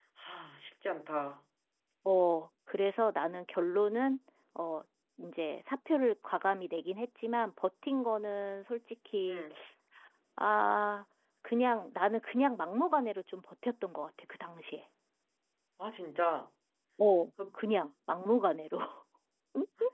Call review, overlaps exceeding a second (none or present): none